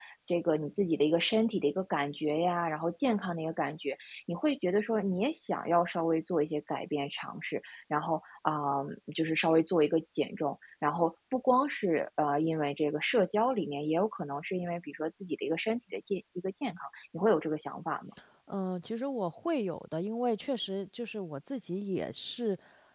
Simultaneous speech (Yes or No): No